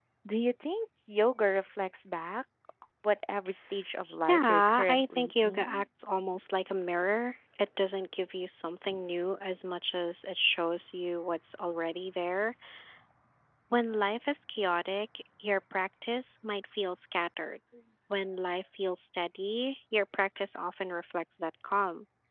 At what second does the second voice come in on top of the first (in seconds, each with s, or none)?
4.3 s